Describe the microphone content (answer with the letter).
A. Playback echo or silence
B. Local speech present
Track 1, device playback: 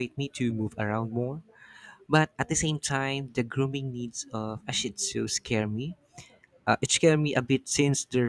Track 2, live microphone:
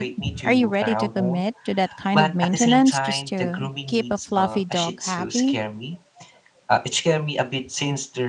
B